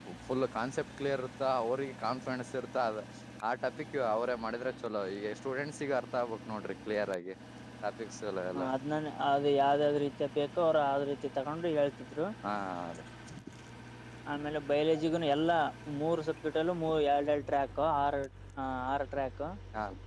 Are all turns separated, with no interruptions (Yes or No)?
Yes